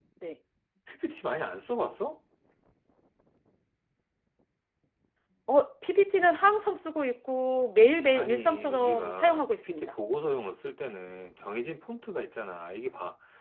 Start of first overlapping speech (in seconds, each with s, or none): 8.1 s